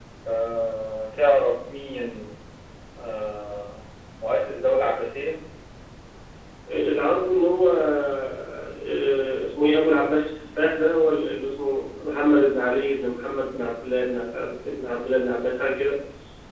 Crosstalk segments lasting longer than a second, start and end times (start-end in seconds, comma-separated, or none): none